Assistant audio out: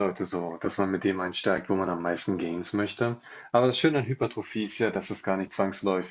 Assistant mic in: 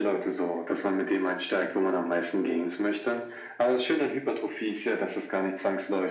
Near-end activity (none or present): none